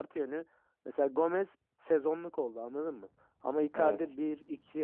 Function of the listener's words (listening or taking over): listening